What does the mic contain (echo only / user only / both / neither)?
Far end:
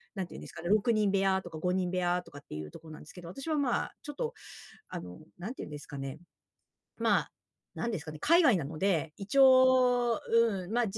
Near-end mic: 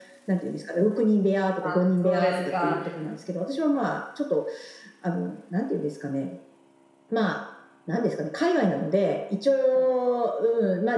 both